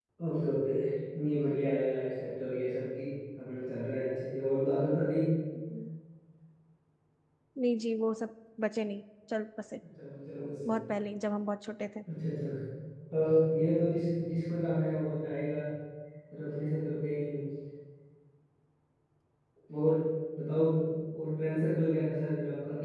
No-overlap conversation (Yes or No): Yes